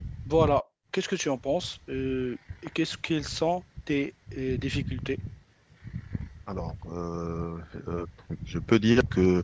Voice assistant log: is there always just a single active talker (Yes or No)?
Yes